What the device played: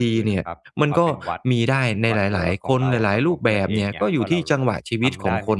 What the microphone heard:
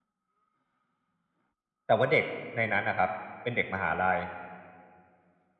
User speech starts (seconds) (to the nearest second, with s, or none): 2 s